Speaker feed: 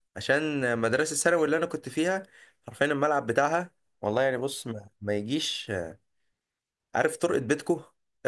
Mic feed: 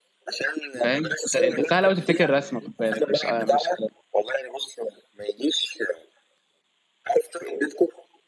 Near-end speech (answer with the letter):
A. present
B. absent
A